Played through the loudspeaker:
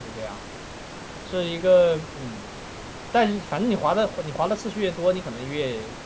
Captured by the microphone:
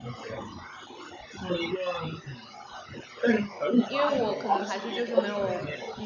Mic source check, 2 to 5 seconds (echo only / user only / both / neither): both